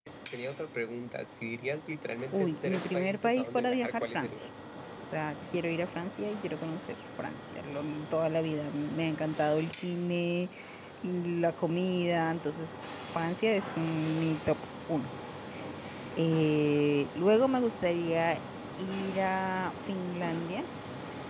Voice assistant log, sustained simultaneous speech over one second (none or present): present